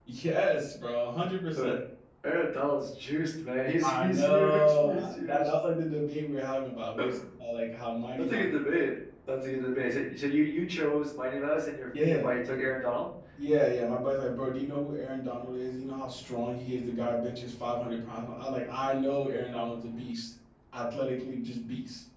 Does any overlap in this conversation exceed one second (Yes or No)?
Yes